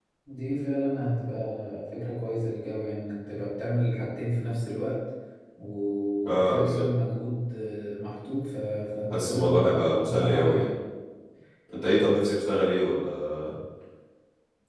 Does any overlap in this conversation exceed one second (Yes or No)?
Yes